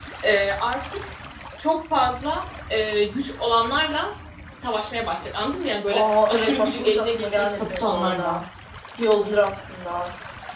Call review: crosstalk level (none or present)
present